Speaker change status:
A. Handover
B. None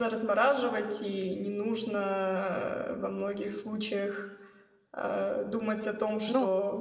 A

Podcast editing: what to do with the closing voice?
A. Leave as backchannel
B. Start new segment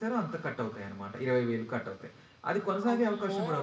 A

